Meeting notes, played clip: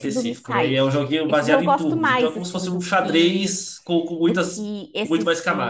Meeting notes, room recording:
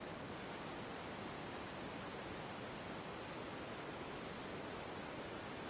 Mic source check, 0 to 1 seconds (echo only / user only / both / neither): neither